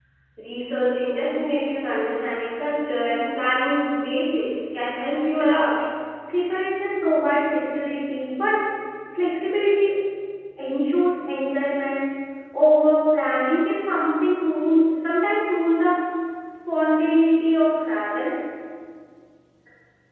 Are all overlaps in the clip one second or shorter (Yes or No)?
Yes